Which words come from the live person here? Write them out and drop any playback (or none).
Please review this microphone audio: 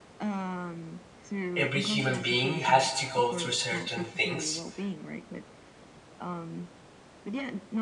every human being has to go through certain things